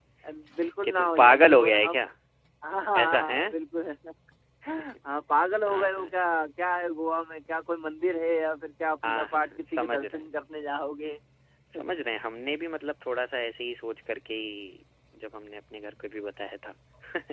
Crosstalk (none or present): present